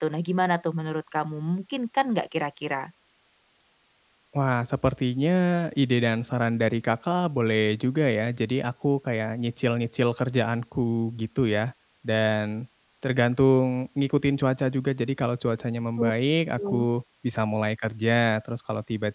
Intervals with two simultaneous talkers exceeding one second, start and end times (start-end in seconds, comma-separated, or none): none